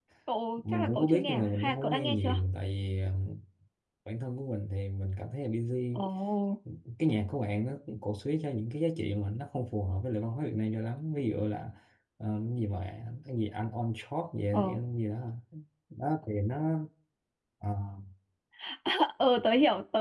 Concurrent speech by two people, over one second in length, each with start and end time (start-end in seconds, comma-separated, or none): 0.7-2.3